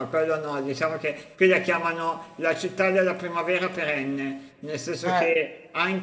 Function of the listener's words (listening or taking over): listening